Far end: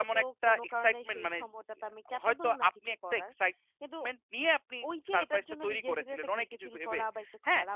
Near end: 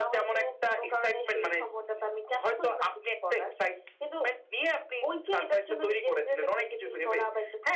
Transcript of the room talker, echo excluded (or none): none